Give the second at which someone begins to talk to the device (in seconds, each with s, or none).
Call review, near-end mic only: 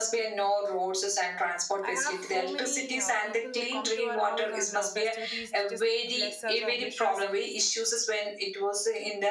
1.8 s